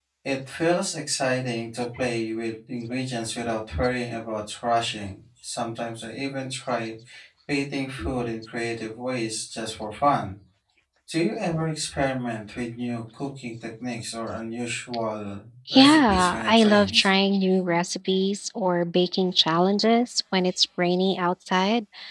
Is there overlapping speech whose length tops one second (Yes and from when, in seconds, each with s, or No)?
Yes, from 15.7 s